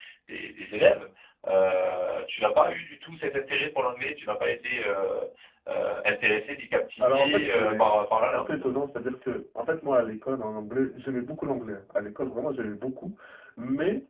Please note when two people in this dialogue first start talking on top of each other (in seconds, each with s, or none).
7.0 s